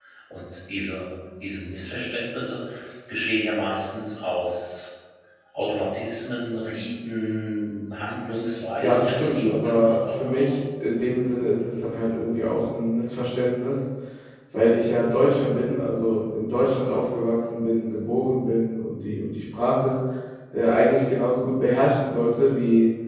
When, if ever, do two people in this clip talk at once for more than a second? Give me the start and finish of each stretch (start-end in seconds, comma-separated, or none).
8.8-10.6